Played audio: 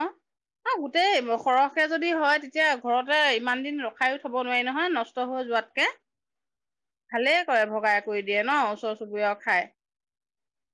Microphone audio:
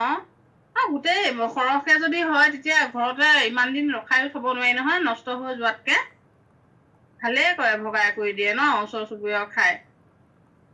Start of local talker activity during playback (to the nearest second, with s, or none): none